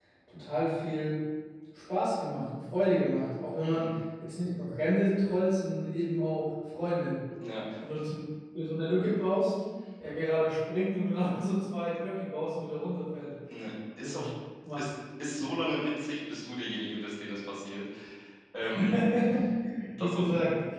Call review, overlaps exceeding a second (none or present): none